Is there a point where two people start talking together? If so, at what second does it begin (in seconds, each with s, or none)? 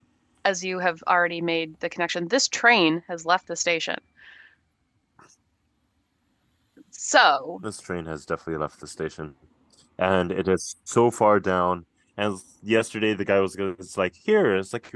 none